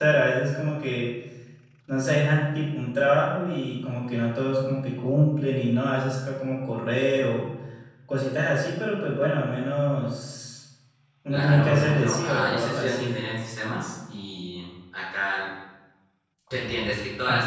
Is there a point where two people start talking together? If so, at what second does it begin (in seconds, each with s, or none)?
11.3 s